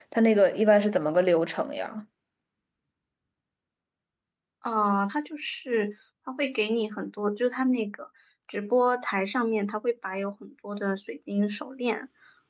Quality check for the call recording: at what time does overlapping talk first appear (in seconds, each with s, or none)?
none